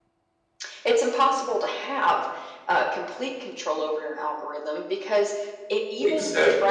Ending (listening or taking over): listening